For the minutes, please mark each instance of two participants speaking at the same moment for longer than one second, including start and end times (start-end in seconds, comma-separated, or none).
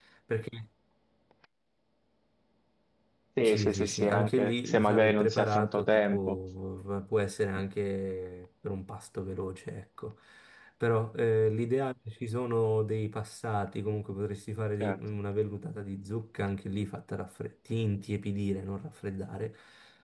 3.4-6.4